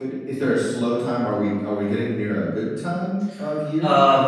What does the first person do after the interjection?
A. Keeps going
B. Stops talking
B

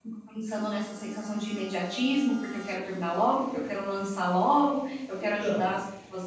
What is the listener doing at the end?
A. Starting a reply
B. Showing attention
B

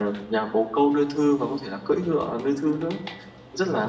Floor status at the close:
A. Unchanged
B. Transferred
B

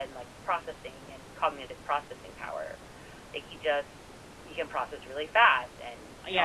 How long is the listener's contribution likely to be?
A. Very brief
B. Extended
B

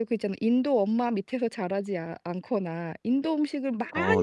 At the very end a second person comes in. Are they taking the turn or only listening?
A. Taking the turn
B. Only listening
B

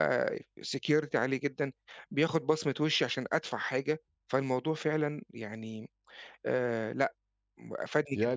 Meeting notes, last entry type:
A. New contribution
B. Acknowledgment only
A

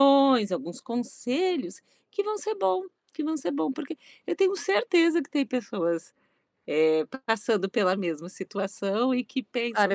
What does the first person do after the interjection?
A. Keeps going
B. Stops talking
B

